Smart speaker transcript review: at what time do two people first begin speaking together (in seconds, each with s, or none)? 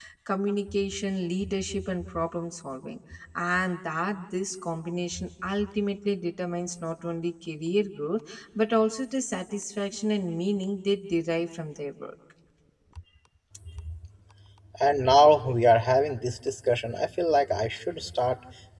none